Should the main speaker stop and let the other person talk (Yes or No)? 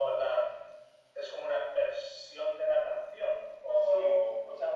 Yes